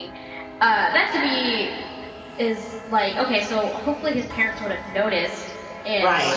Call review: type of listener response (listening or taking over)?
listening